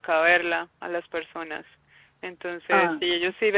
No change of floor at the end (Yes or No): Yes